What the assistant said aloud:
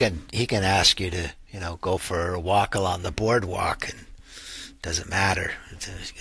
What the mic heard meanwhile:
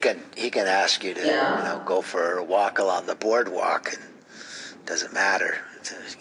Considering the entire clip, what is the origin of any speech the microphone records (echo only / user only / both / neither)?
both